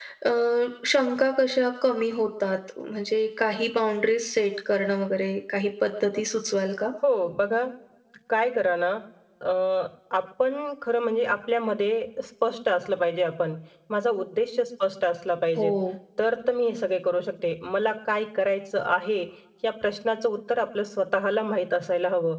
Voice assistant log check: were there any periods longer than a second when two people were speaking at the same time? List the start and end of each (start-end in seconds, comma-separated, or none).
none